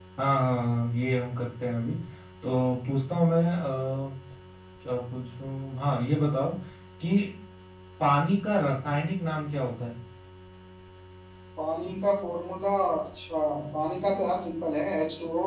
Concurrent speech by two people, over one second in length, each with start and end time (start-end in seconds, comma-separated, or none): none